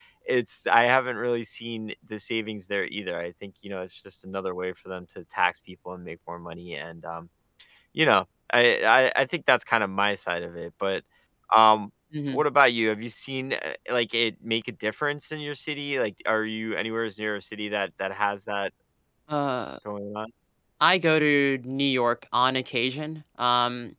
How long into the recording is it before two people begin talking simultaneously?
none

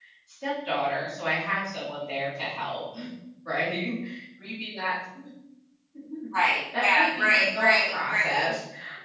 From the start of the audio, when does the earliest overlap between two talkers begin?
6.8 s

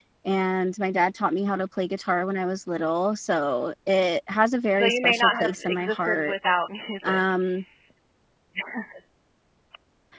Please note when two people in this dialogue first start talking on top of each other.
4.7 s

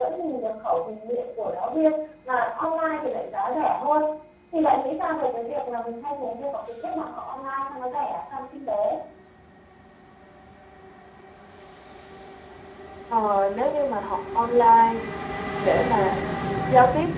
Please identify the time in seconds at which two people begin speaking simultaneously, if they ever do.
none

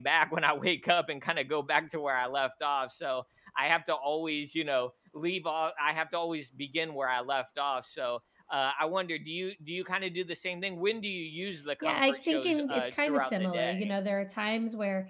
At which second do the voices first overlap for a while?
11.8 s

